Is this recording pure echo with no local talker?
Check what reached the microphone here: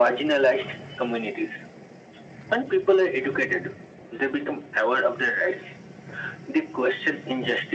Yes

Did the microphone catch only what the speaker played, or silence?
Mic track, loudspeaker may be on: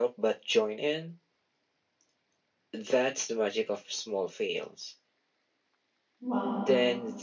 No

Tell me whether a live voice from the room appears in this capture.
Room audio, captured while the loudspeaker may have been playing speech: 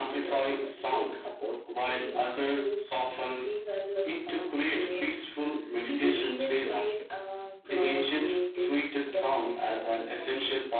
No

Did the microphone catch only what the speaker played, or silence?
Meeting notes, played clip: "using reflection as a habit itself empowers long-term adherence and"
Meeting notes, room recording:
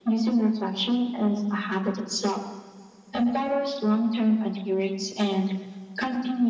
Yes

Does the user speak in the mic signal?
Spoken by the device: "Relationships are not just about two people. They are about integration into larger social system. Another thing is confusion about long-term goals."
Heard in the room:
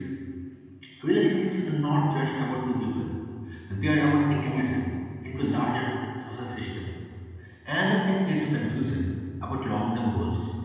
No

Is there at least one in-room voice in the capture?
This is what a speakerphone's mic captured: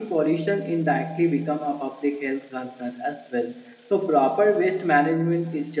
Yes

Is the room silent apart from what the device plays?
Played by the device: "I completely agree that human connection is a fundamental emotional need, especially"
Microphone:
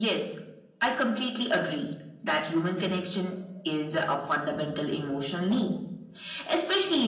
Yes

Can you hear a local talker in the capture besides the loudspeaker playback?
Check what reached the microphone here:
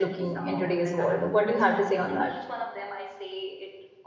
Yes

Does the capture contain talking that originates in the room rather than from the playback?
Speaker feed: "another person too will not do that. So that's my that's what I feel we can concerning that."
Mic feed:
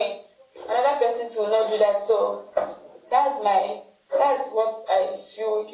No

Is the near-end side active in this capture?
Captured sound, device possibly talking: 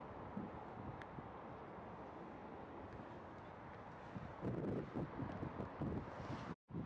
No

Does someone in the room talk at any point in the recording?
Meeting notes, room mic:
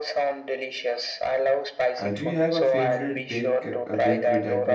Yes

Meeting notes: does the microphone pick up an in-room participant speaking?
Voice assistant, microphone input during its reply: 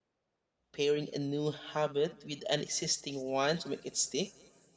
Yes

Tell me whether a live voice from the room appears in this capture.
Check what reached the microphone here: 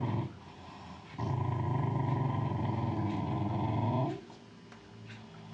No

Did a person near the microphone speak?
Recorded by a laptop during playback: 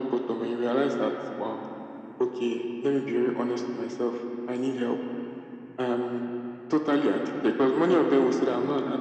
No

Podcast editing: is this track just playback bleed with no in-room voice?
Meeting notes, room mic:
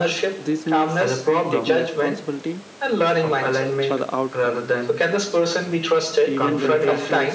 No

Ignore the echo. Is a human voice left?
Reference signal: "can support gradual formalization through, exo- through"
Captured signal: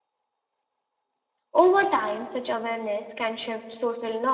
Yes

